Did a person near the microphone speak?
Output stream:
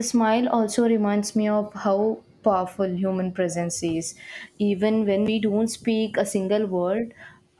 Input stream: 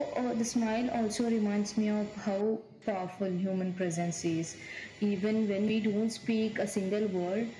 No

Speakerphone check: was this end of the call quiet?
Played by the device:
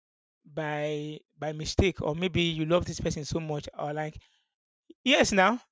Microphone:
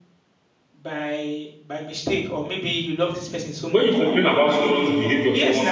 No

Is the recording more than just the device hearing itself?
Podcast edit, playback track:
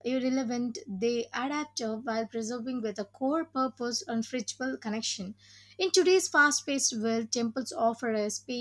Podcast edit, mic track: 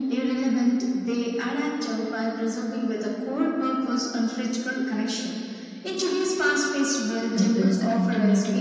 Yes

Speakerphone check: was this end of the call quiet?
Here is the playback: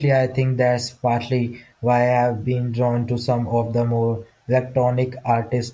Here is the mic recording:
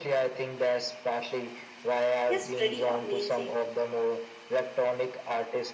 No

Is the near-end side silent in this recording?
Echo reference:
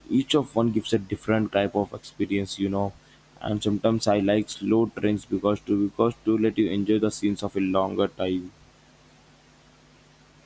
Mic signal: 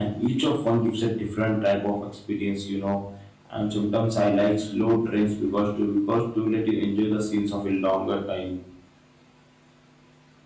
Yes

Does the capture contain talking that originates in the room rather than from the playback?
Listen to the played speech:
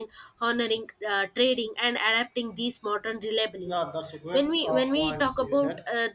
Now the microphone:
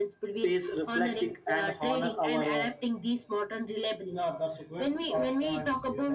Yes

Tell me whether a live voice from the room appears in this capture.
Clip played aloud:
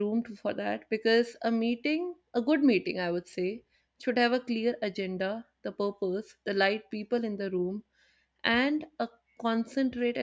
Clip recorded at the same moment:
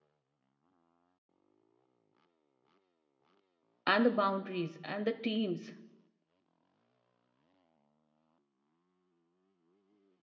Yes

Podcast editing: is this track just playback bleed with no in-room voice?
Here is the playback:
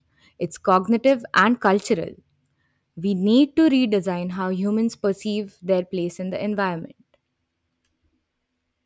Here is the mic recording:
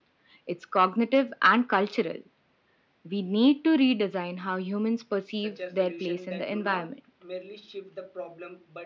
No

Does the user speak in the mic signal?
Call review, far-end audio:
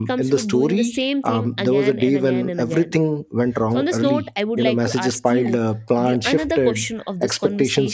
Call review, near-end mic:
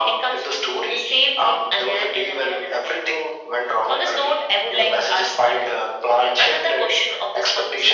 No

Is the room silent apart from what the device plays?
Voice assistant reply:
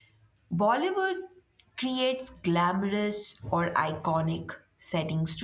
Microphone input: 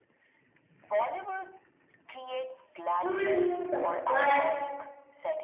No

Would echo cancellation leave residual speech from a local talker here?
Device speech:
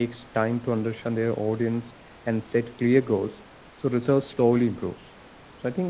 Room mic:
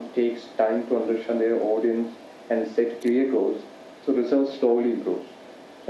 No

